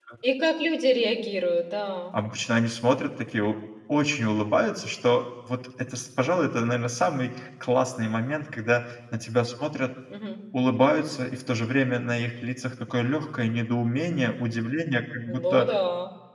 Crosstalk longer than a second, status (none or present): none